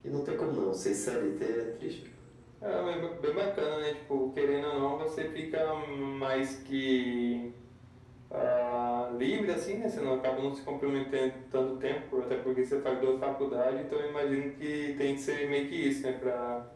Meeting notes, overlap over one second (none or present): none